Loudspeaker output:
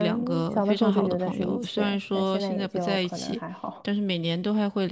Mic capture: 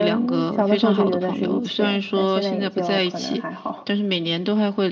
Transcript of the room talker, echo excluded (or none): none